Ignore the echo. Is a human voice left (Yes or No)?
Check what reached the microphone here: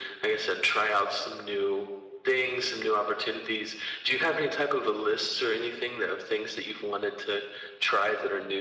No